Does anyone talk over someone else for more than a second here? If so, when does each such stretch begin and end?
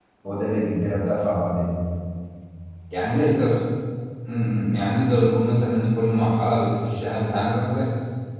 none

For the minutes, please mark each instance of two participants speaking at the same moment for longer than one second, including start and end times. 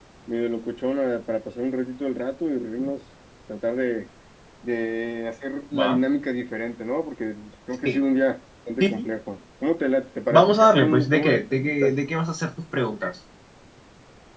10.3-11.9

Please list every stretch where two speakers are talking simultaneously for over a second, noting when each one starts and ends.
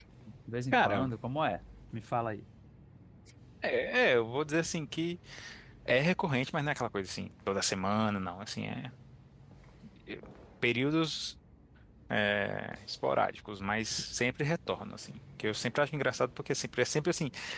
none

